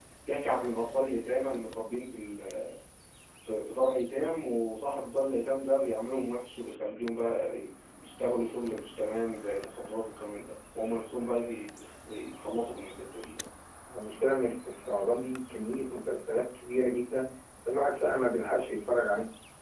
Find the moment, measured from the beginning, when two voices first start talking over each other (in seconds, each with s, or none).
none